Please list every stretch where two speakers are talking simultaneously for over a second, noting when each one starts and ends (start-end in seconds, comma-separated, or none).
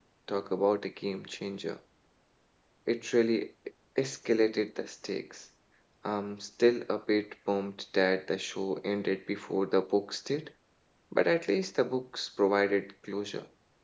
none